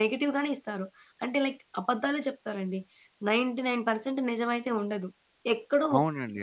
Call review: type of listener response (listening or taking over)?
taking over